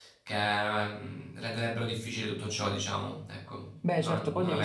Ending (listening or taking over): taking over